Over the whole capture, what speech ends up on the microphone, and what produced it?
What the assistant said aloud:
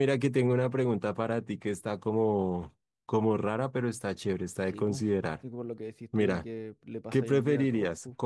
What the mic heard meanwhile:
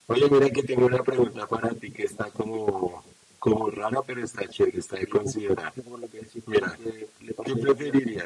echo only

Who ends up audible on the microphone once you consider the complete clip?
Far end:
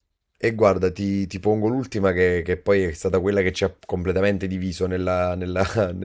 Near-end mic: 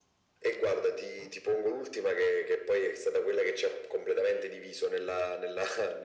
echo only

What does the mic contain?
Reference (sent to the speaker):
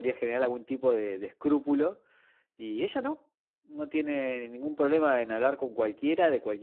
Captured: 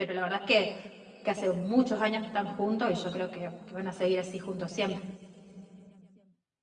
user only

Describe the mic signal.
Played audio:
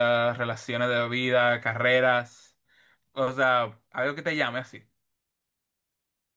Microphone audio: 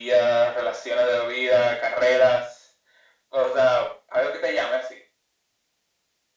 echo only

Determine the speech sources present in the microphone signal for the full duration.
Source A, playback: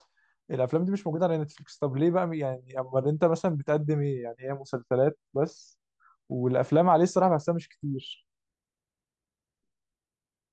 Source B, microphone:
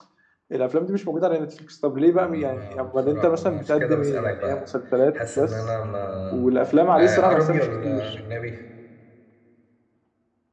both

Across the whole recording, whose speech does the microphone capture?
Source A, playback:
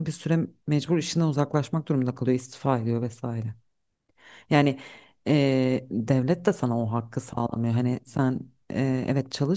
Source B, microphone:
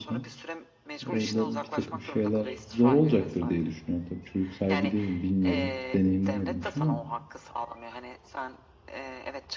both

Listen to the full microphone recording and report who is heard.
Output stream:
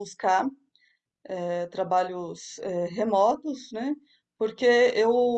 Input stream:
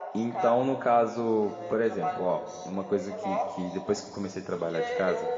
both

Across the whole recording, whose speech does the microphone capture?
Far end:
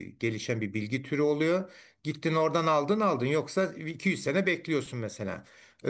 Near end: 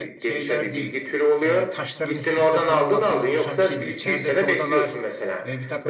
both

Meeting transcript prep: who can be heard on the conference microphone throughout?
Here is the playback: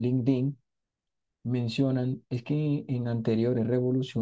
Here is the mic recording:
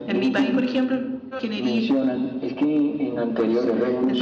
both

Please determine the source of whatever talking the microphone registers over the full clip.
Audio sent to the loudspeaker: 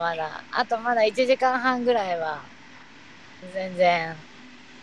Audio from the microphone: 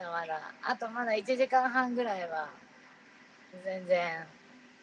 echo only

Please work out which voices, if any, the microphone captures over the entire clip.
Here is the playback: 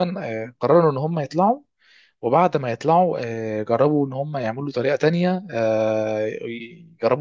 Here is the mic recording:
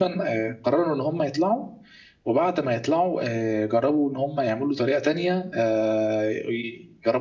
echo only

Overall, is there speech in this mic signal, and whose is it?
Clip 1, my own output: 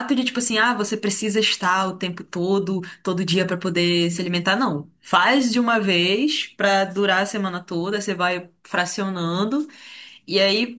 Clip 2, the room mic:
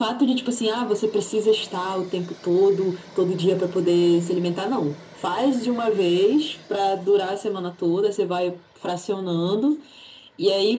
echo only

